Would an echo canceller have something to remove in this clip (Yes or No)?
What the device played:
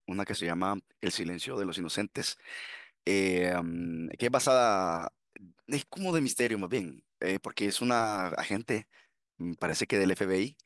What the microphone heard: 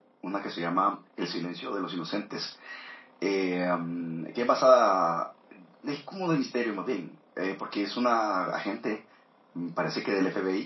Yes